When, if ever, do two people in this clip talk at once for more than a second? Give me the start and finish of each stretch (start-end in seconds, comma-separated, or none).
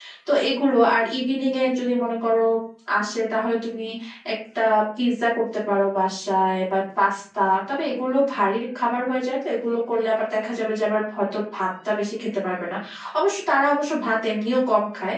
none